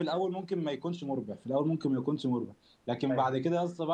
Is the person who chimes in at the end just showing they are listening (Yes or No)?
Yes